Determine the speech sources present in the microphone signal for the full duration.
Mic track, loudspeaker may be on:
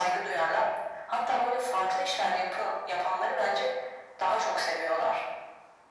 echo only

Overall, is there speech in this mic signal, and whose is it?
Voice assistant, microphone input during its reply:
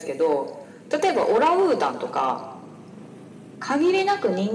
echo only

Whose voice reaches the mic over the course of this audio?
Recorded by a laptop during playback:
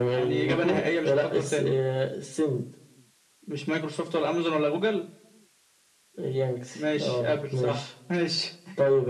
echo only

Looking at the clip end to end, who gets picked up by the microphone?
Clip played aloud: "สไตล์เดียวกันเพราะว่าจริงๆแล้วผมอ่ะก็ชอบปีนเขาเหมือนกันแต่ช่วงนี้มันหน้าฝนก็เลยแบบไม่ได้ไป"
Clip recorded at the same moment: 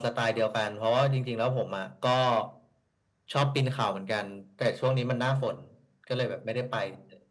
echo only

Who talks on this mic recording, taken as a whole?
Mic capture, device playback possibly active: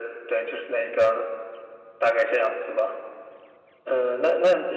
echo only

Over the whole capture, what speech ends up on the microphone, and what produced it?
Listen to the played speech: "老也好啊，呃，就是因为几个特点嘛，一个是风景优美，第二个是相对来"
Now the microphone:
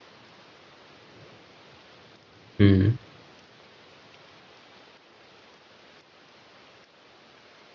user only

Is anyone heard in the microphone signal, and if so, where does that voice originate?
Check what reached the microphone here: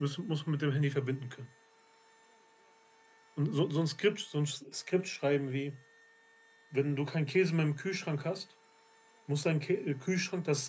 user only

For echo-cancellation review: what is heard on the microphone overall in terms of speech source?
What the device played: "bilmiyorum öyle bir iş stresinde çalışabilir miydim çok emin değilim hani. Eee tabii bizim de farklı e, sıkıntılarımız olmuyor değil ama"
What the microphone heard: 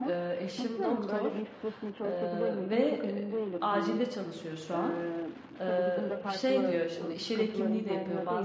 both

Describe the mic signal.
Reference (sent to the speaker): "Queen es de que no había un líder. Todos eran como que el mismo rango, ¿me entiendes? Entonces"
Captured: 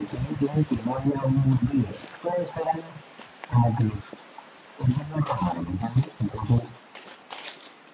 echo only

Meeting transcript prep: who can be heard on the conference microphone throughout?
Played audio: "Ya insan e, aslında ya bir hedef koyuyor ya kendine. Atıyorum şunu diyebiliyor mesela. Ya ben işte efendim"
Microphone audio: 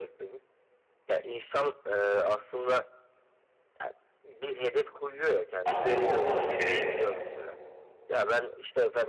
both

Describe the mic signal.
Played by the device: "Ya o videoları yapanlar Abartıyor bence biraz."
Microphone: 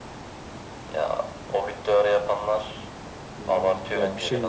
both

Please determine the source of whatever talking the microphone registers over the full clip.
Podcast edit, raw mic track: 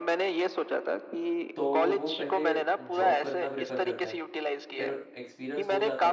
both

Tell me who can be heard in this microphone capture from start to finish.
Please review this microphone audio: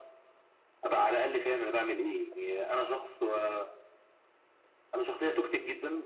echo only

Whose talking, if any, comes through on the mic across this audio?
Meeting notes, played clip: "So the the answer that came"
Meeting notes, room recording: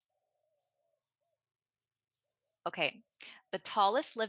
user only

